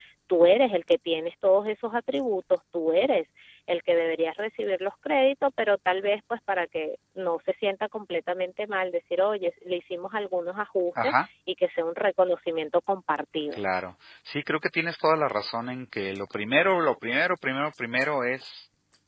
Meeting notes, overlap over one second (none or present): none